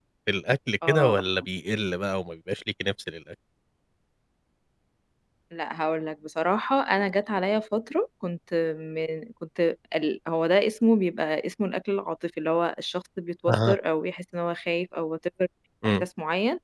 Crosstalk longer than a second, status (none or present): none